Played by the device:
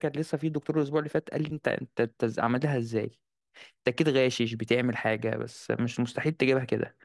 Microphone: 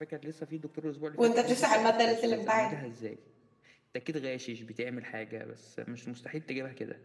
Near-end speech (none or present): present